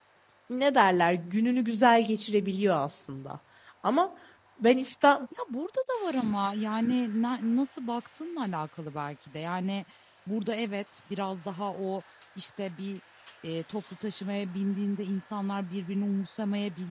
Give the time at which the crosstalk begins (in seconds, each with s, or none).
none